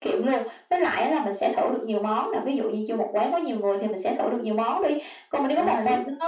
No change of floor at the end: Yes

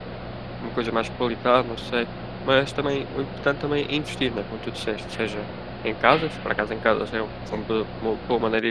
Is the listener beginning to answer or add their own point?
No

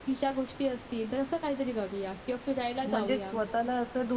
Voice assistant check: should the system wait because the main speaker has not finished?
No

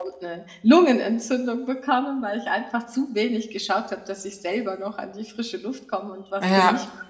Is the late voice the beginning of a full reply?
Yes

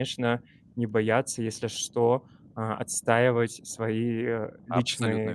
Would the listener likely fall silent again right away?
No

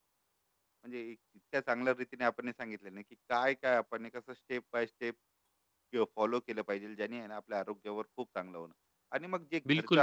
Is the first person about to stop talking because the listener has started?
No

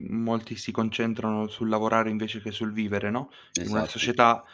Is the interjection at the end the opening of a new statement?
No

